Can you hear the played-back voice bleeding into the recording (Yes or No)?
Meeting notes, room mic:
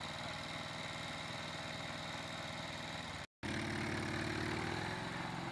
No